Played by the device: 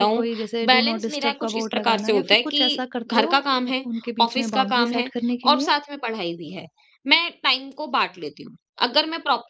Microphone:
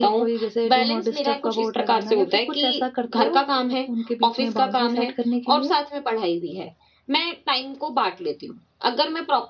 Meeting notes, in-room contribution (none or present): none